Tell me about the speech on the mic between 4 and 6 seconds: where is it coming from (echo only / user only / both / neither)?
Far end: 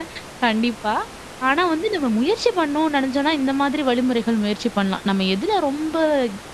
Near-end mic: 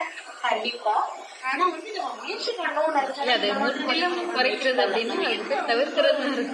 both